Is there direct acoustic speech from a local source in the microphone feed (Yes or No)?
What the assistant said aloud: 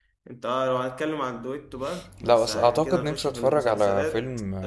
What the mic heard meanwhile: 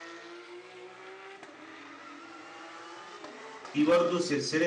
Yes